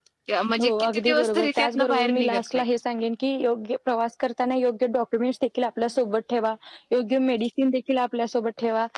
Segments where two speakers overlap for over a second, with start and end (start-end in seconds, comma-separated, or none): 0.6-2.6